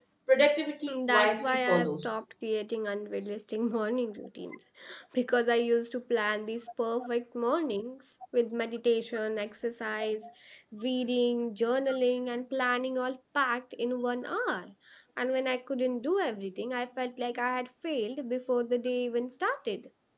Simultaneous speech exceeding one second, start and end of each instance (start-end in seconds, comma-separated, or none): 0.9-2.2